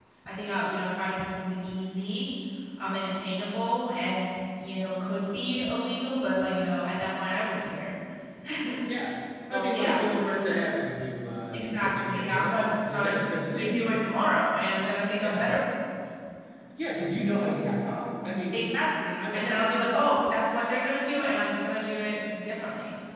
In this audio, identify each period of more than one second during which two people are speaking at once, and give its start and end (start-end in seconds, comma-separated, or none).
11.5-14.0